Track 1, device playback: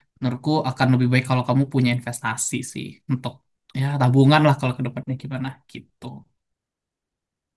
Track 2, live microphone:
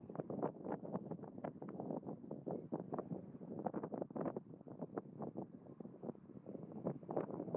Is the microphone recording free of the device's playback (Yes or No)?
Yes